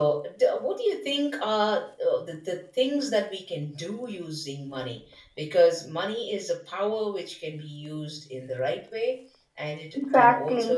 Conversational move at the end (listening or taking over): listening